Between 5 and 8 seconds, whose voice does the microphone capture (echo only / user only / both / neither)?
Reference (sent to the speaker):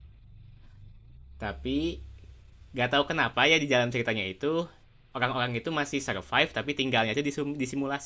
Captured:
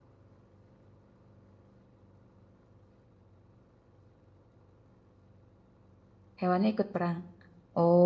user only